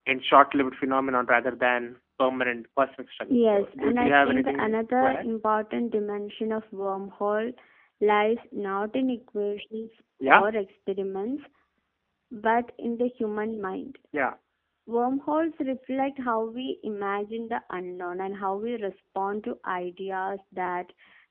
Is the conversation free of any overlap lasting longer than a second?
No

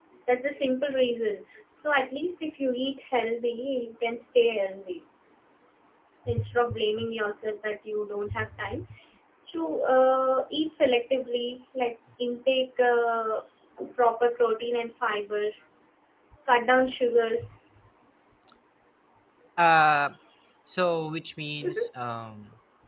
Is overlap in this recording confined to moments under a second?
Yes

